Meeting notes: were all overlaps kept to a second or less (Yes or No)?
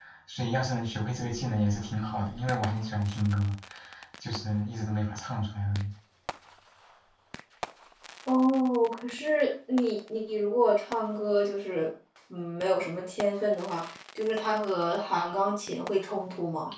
Yes